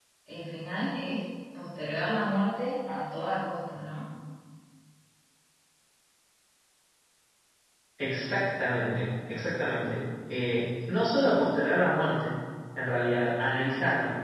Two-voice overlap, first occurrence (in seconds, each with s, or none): none